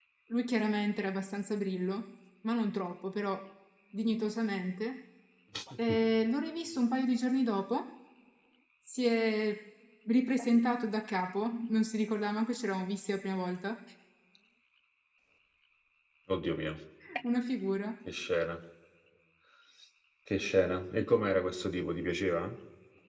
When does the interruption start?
none

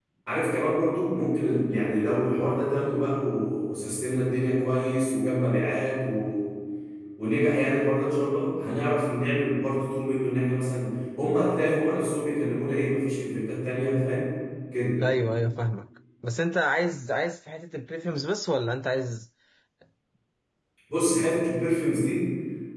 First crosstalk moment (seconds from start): none

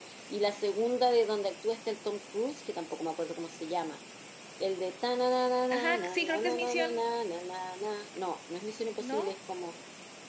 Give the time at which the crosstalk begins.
5.7 s

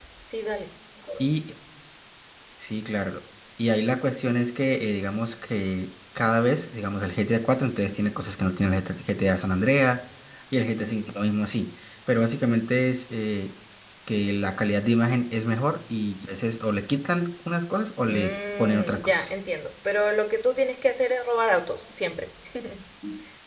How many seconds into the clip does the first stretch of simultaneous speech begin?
18.1 s

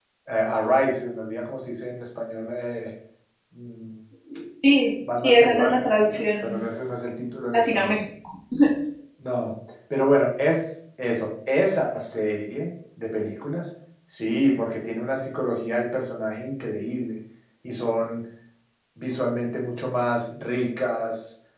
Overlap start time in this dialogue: 5.2 s

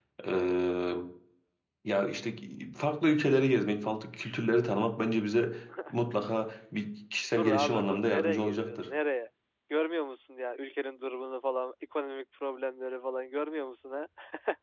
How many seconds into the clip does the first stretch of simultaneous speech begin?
7.4 s

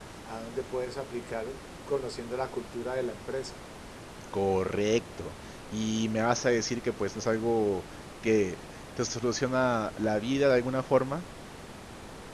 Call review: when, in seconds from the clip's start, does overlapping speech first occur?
none

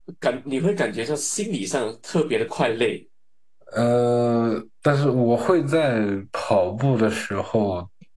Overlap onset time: none

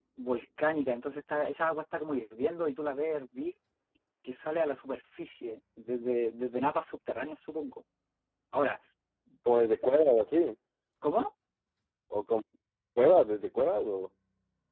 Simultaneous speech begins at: none

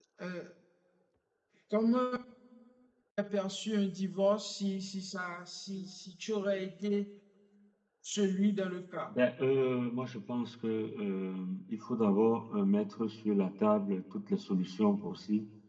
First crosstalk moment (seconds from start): none

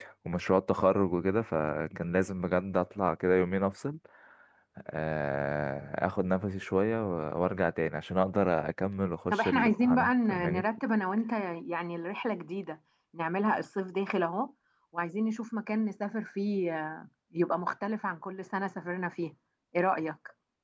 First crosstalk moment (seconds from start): 9.3 s

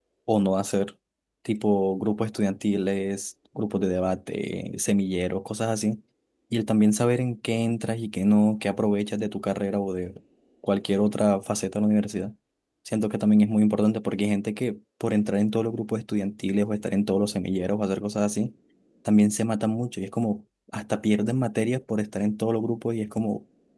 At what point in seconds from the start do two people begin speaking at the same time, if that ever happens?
none

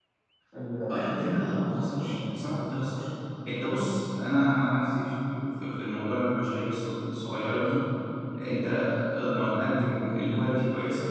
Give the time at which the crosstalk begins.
0.9 s

